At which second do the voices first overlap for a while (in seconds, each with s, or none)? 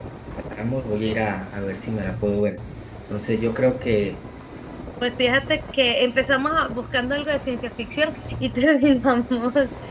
none